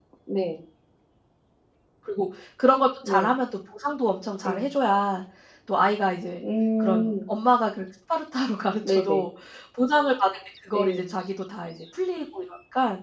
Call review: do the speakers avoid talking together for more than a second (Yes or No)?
Yes